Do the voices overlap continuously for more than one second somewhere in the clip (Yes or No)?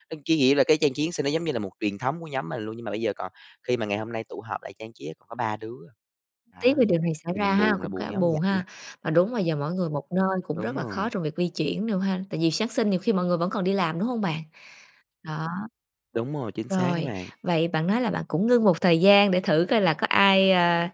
Yes